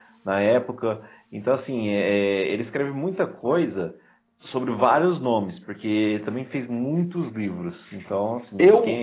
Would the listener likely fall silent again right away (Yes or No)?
No